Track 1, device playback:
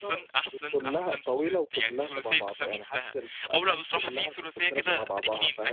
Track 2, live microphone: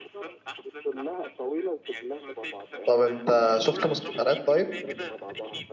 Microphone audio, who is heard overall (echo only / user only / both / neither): both